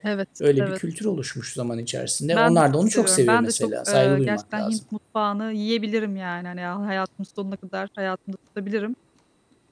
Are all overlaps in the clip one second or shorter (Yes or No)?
No